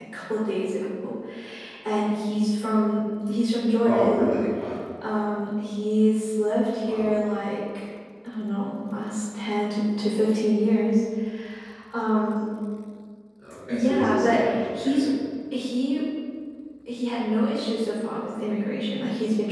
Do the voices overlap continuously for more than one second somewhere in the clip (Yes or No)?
Yes